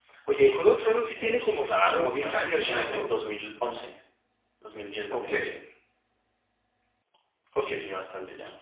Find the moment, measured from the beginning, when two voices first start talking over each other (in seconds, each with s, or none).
1.1 s